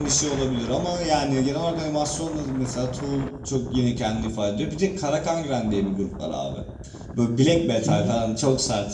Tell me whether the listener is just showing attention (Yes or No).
Yes